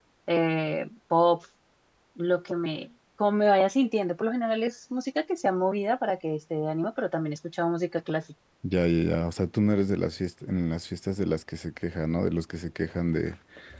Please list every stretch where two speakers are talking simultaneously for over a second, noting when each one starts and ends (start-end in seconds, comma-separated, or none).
none